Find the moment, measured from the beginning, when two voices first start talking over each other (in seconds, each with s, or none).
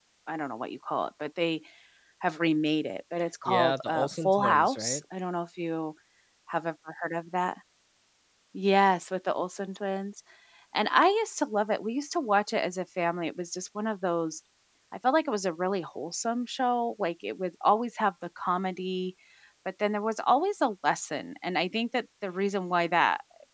3.5 s